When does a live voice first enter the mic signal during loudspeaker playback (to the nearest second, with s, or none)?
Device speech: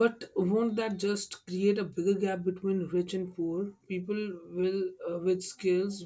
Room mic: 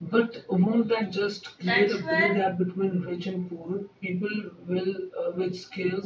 2 s